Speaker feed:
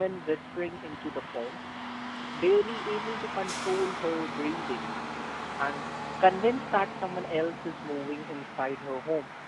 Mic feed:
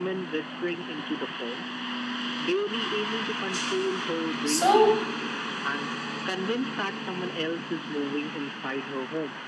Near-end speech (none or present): present